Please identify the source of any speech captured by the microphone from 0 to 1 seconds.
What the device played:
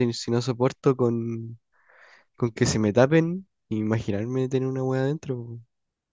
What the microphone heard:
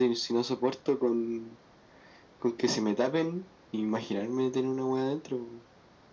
echo only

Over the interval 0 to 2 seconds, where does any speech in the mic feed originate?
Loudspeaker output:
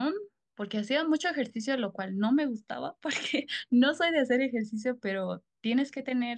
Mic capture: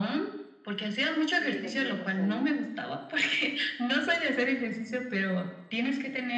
both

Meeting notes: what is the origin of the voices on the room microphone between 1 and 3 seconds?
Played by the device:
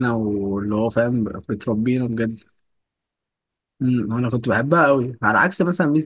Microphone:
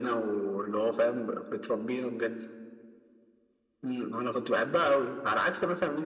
echo only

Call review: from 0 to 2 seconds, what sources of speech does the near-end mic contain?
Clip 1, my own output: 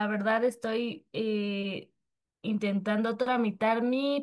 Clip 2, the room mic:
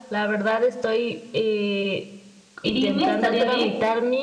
echo only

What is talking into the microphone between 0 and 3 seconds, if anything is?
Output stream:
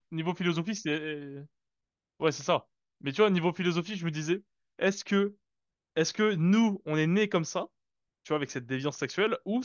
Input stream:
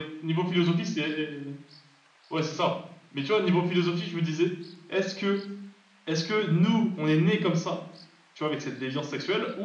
echo only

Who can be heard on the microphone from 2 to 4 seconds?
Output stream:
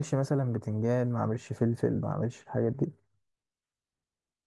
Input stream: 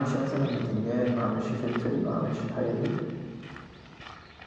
echo only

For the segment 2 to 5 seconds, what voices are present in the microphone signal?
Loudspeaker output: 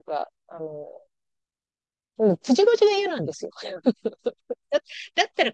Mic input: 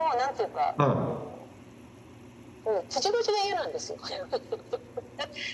echo only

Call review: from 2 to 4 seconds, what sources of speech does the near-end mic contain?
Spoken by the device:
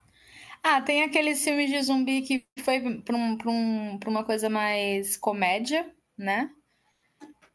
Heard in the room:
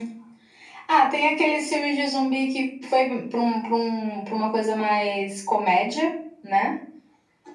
echo only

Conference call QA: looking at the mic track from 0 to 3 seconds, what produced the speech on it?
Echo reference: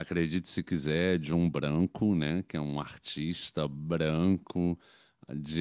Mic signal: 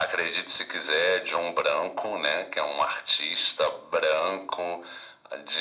echo only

